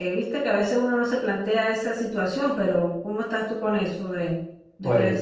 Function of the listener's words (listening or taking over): taking over